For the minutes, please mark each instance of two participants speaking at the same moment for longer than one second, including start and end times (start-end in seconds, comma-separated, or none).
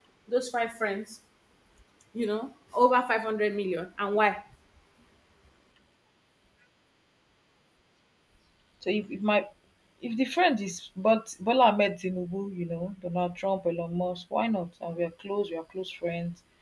none